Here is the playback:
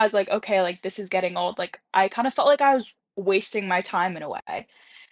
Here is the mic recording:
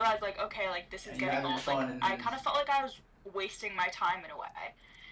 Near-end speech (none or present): present